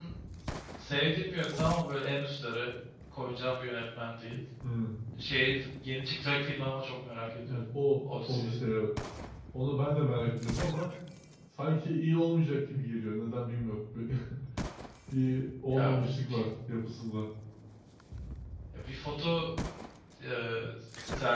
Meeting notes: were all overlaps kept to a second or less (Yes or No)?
Yes